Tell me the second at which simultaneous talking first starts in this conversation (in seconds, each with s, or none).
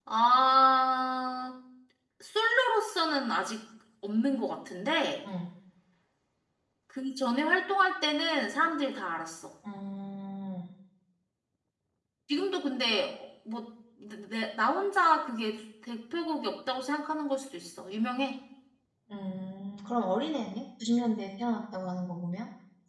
none